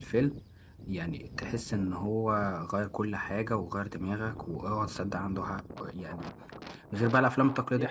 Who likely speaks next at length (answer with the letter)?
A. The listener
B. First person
B